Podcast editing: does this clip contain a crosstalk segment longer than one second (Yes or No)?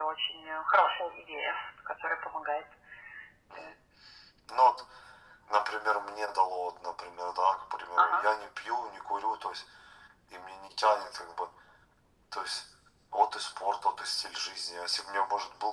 No